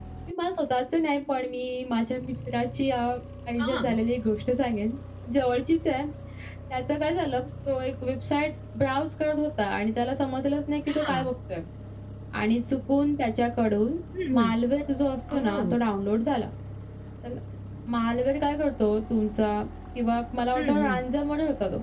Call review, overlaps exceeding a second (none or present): none